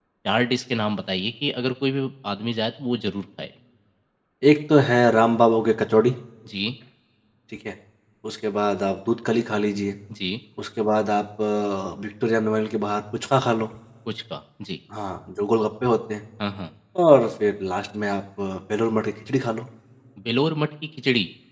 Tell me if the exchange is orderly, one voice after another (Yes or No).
Yes